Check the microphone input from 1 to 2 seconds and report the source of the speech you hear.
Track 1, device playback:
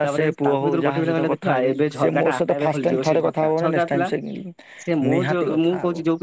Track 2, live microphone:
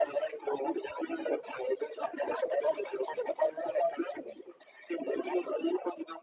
echo only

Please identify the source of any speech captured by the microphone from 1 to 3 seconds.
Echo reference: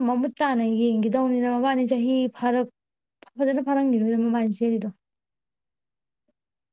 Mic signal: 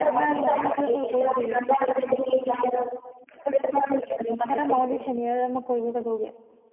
both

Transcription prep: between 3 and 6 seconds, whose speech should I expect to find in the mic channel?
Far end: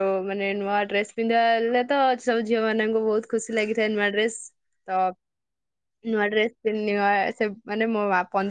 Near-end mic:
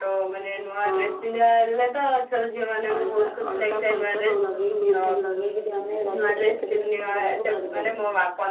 both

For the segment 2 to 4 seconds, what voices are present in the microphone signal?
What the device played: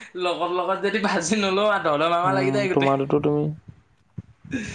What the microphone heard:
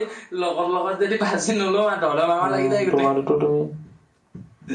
echo only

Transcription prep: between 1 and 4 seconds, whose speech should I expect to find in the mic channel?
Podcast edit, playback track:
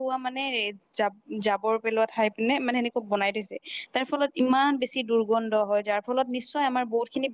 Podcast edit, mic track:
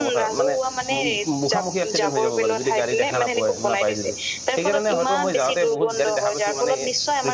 both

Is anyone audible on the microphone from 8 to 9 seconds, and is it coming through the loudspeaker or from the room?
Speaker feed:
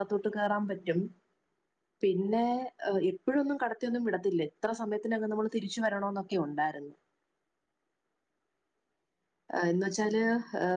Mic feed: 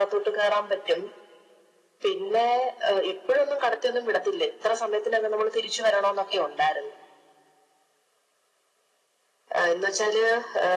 neither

